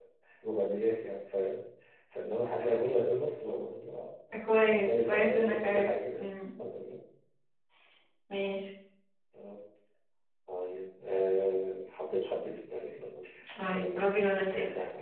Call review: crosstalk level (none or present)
present